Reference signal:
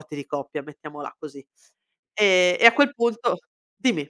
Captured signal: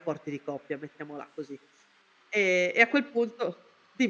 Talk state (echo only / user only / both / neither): echo only